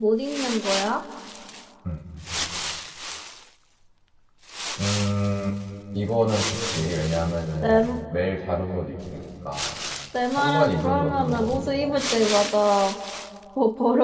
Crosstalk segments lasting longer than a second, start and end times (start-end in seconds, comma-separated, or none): 10.4-12.0